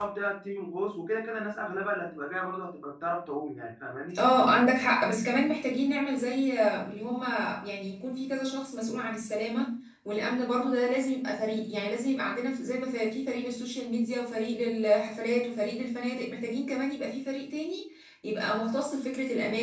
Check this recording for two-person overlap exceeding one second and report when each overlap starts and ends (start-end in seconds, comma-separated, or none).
none